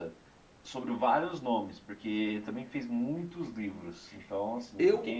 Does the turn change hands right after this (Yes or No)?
Yes